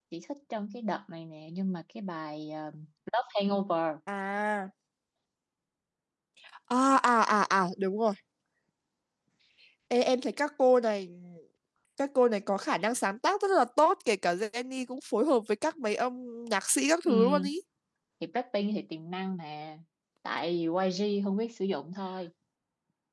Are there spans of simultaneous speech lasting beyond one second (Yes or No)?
No